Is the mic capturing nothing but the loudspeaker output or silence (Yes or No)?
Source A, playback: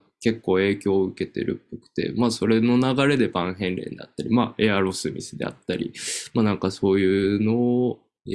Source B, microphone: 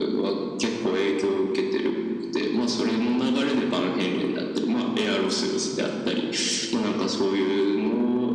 Yes